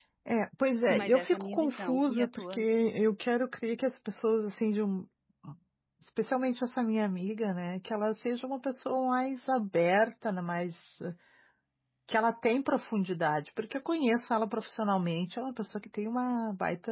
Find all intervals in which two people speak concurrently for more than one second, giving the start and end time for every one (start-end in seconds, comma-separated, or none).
0.9-2.6